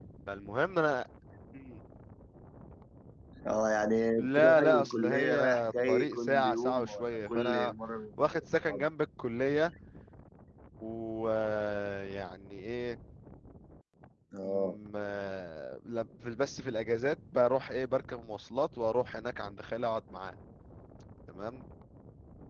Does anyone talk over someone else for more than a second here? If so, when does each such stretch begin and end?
4.2-7.7

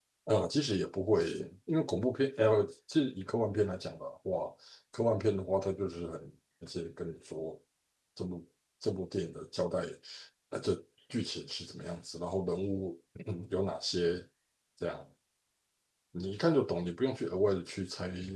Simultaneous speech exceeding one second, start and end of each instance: none

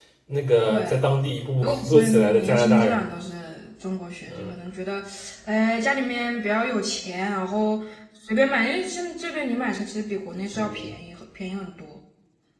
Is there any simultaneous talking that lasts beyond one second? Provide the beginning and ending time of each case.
1.6-3.1

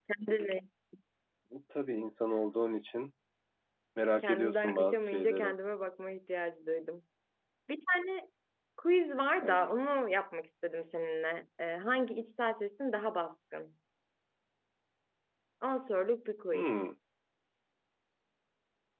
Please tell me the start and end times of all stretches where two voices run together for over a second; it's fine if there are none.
4.2-5.5

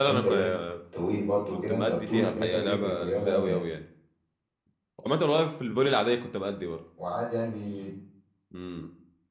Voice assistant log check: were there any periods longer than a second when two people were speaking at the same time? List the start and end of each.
1.5-3.6

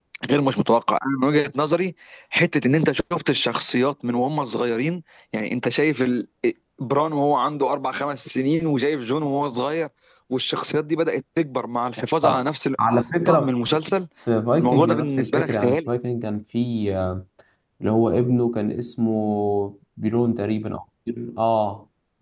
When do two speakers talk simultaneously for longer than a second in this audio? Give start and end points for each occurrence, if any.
14.6-15.9

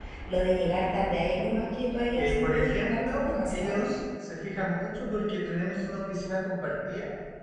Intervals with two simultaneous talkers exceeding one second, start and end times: 2.1-3.9

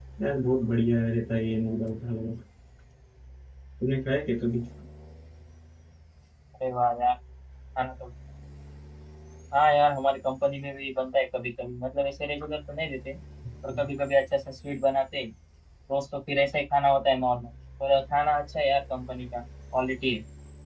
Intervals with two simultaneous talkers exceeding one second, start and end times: none

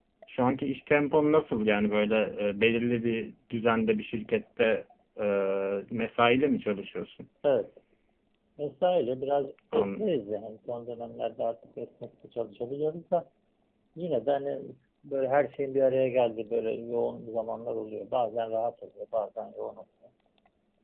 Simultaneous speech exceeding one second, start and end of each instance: none

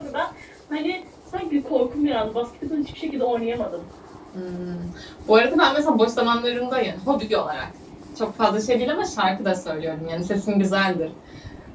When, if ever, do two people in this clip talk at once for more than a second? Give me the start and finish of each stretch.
none

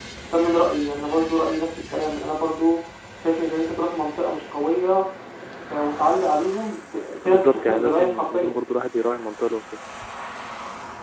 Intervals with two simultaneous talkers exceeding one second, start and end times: 7.2-8.5

